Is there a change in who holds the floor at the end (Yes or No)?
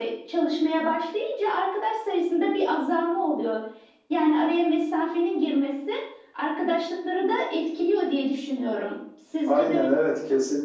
Yes